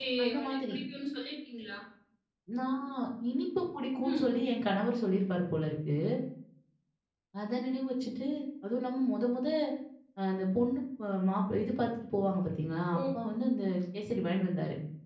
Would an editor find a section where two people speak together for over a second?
No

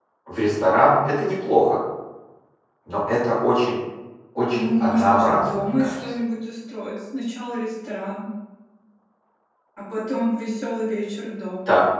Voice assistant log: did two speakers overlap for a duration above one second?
Yes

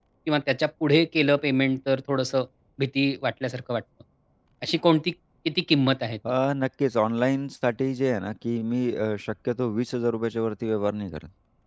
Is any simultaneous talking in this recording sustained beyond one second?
No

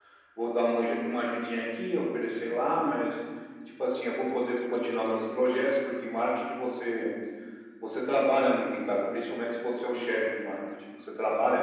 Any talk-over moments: No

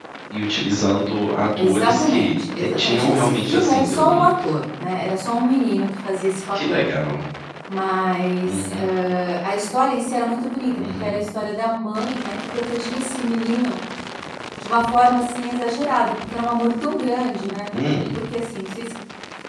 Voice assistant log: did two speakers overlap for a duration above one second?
Yes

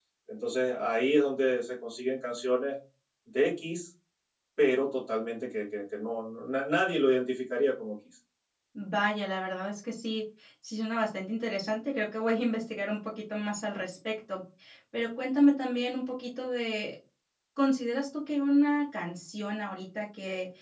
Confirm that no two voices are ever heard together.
Yes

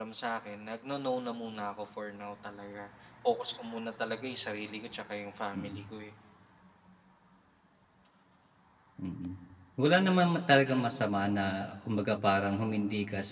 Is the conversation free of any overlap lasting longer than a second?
Yes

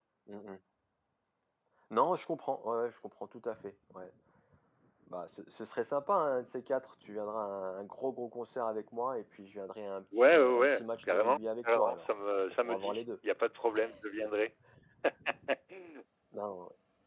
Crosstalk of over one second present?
Yes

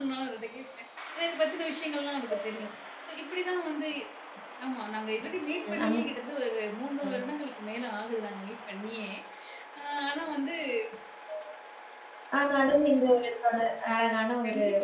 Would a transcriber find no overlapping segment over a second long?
Yes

